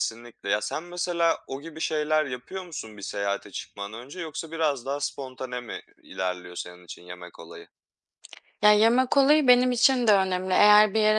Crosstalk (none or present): none